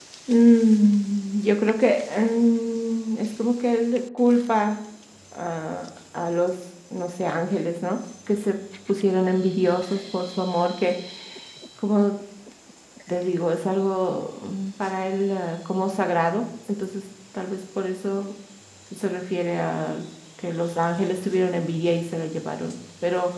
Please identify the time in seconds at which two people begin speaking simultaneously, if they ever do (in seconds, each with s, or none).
none